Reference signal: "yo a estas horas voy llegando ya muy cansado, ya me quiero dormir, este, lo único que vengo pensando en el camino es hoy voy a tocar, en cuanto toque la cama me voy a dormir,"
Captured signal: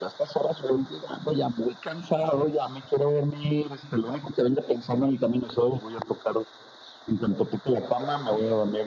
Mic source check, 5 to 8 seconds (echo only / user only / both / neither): echo only